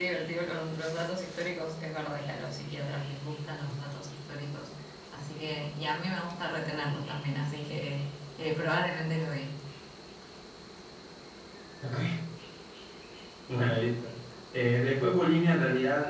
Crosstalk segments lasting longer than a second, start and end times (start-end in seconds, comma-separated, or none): none